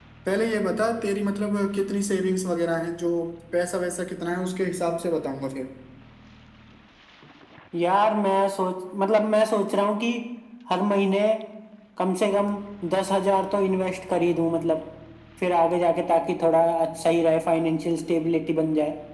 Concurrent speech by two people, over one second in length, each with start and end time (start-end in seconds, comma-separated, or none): none